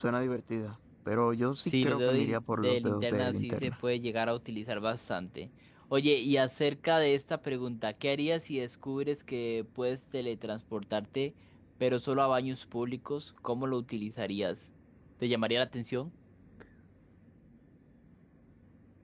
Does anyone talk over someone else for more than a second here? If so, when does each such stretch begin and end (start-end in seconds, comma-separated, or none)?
1.6-3.7